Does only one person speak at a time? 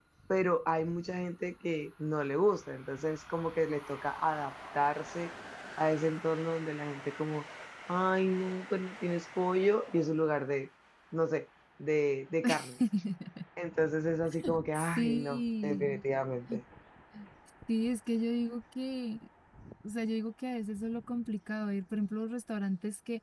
No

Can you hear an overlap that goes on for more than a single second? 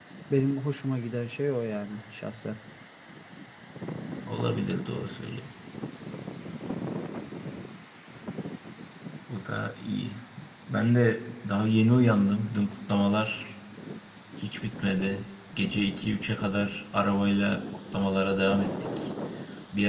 No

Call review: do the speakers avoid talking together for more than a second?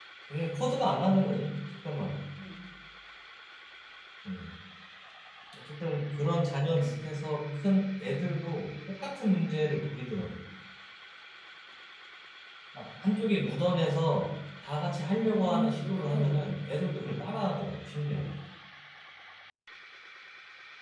No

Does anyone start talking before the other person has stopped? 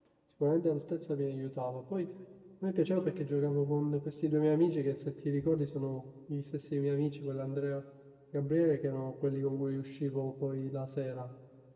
No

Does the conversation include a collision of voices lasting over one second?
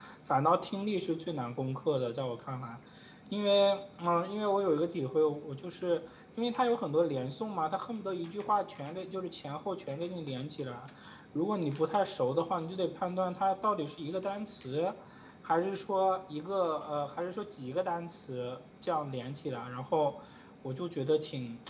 No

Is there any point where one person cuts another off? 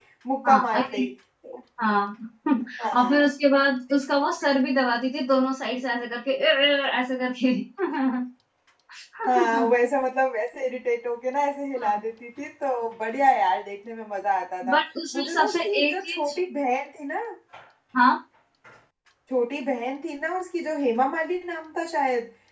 Yes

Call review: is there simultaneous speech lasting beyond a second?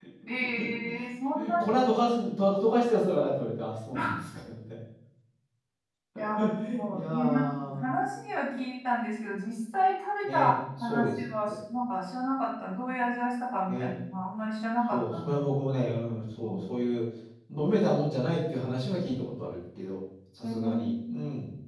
Yes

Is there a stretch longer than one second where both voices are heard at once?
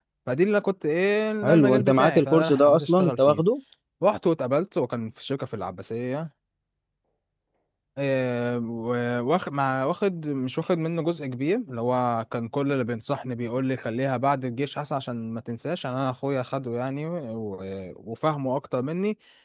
Yes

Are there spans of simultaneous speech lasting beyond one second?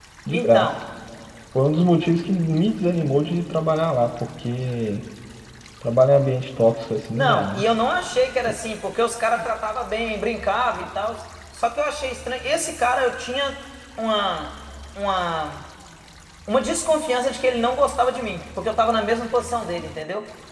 No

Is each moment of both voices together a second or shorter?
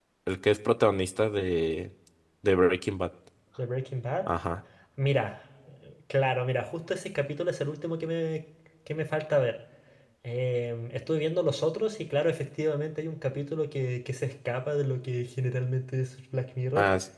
Yes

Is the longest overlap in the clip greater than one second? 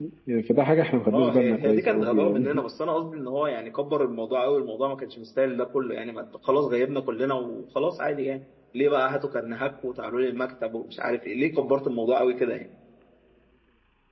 Yes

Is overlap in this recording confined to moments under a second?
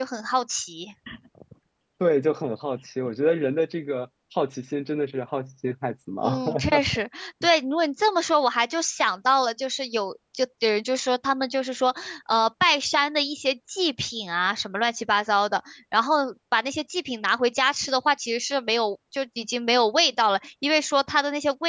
Yes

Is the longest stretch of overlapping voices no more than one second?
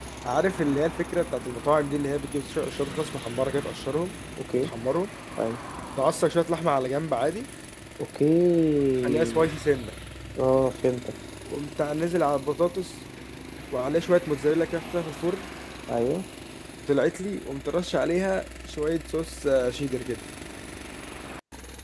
Yes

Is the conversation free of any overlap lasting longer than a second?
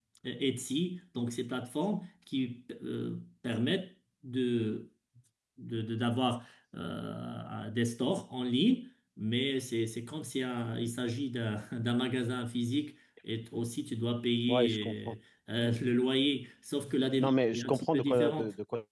No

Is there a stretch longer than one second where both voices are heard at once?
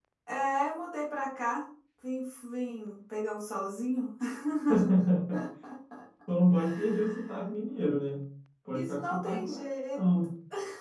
Yes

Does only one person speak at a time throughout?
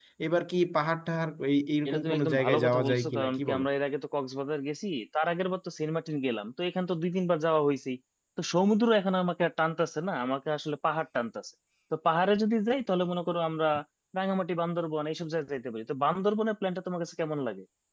No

